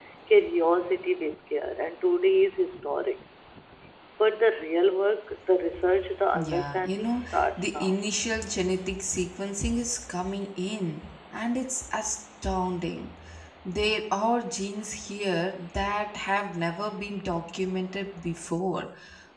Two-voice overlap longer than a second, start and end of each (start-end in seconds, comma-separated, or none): 6.3-7.9